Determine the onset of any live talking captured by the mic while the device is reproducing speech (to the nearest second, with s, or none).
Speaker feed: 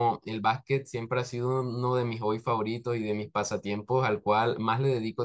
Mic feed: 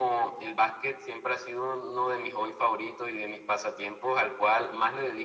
none